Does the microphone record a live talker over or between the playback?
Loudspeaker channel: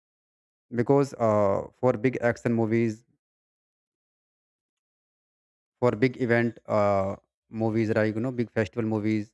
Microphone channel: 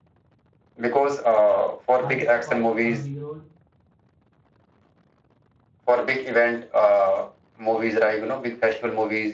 Yes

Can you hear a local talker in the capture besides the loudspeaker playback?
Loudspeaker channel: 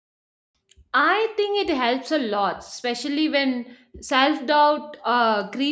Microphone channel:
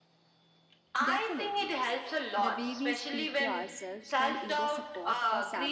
Yes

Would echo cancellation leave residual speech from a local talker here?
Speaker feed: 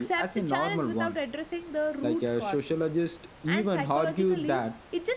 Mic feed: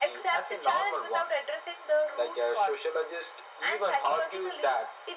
No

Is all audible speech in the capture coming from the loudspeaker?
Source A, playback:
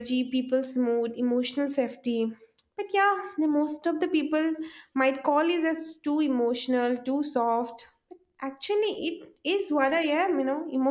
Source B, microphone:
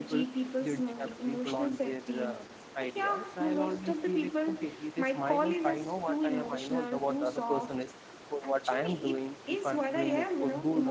No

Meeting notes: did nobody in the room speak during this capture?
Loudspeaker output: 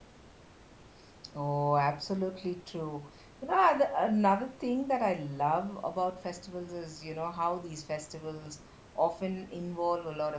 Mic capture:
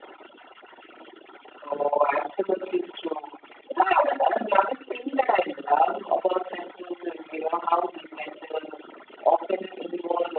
Yes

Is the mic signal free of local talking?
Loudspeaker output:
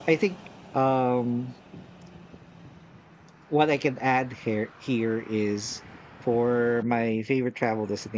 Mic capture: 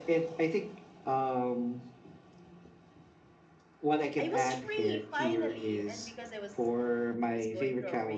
No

